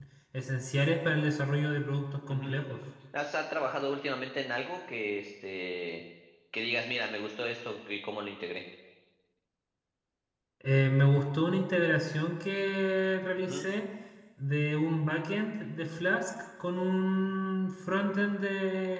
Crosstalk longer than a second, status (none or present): none